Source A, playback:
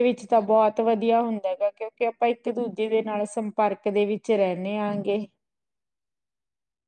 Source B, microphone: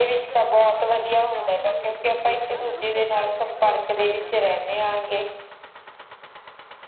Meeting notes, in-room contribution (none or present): present